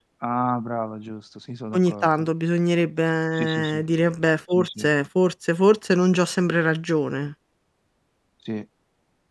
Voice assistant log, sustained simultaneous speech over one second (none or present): none